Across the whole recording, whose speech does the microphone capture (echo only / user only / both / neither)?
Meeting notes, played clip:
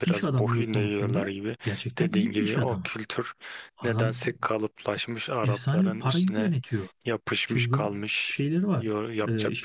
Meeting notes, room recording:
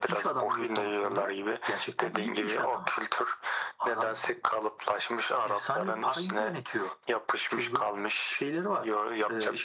echo only